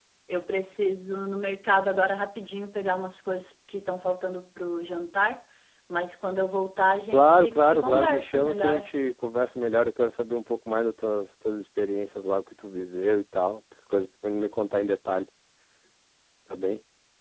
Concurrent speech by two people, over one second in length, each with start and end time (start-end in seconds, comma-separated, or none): 7.1-8.9